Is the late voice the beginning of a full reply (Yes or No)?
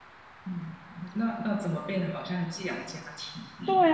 Yes